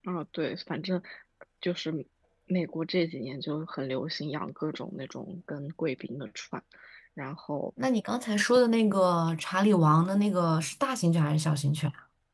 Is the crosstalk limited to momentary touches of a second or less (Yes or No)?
Yes